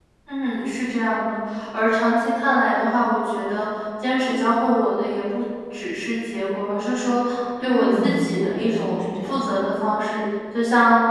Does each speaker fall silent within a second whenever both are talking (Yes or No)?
No